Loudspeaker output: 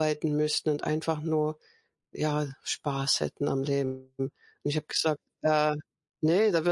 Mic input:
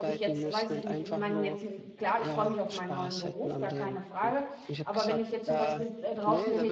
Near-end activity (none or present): present